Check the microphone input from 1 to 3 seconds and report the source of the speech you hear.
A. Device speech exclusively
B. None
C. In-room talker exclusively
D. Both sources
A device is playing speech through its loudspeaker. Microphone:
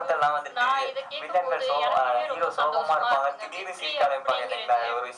A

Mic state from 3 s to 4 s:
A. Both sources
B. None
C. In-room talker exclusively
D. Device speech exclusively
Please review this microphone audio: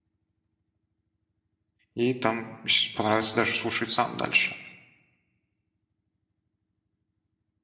C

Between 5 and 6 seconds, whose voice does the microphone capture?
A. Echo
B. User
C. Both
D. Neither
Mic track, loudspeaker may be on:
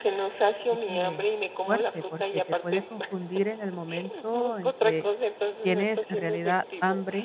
C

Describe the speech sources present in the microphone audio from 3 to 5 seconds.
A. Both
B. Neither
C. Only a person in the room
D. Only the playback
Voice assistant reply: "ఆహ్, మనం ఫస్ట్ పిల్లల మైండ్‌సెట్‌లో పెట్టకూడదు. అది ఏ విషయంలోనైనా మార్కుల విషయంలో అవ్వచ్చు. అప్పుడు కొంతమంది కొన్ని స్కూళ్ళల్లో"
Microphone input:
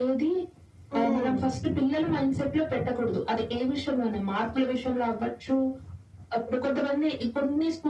D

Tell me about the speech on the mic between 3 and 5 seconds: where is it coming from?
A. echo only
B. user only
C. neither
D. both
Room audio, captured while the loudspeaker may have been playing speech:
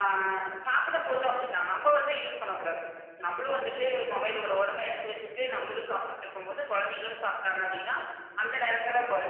A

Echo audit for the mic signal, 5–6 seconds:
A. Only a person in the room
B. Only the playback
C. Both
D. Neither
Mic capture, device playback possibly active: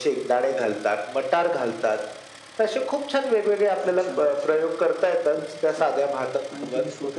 C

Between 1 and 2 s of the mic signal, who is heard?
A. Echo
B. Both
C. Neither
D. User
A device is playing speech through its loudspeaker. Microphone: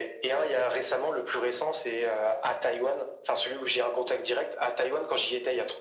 A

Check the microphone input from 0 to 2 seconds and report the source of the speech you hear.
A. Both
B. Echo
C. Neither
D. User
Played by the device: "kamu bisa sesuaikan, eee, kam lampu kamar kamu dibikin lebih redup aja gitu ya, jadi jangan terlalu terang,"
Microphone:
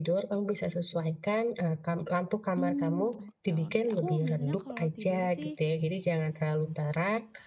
B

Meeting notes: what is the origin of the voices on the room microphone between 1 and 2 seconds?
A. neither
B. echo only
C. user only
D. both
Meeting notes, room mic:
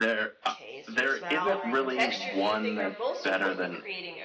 D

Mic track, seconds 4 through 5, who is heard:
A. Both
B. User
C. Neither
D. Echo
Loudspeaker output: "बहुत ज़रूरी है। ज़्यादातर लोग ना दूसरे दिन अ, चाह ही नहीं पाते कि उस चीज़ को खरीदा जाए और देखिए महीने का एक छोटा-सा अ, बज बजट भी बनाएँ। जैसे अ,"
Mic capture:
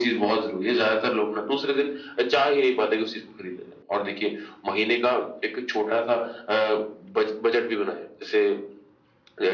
D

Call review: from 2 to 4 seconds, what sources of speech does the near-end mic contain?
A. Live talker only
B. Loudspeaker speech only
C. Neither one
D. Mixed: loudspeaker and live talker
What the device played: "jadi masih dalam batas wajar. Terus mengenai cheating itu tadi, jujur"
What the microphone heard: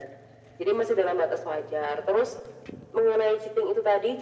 B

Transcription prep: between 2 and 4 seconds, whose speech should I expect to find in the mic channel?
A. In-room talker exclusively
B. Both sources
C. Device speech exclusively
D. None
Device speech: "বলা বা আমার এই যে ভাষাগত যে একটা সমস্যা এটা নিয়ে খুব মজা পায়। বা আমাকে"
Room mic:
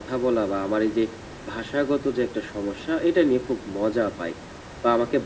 C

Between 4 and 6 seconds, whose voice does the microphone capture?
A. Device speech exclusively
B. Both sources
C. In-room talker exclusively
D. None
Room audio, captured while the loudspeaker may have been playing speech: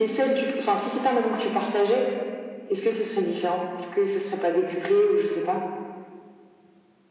A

